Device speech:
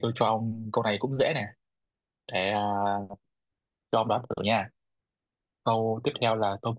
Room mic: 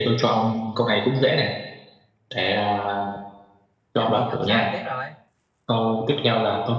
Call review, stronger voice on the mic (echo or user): echo